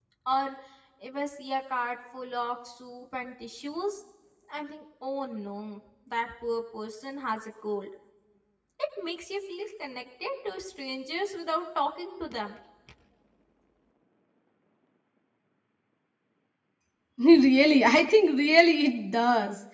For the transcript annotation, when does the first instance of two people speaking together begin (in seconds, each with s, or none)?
none